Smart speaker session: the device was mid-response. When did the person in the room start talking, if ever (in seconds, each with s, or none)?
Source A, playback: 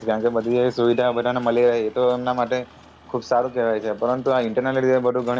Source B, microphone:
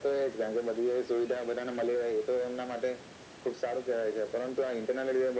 none